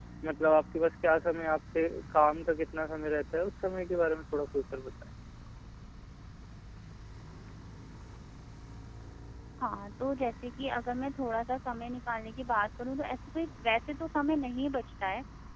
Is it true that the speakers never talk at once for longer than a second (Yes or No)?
Yes